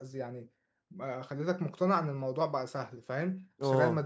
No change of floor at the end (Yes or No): Yes